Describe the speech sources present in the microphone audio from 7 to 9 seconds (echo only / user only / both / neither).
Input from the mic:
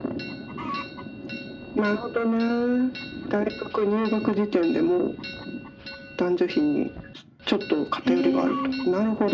both